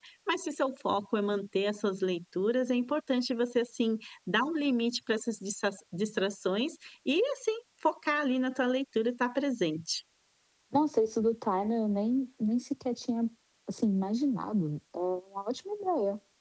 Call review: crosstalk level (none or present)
none